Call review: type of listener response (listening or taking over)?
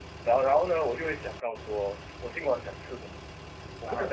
listening